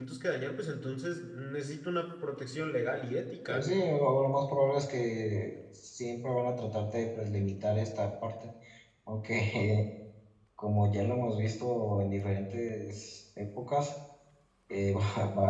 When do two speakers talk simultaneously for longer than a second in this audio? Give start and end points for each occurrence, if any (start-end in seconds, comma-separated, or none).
none